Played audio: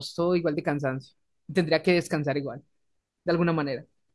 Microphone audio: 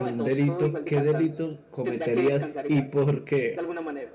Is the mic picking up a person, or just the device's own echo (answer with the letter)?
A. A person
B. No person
A